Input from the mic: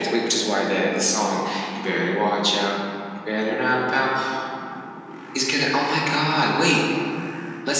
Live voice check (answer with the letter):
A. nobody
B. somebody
A